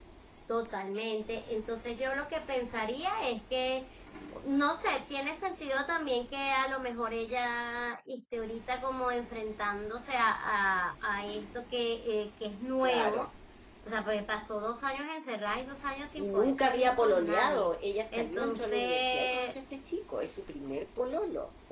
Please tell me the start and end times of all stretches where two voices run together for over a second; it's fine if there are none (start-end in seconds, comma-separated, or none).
16.2-17.7, 18.1-19.6